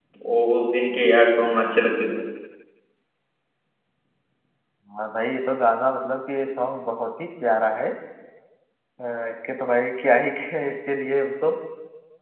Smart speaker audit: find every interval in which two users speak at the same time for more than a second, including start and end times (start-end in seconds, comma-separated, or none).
none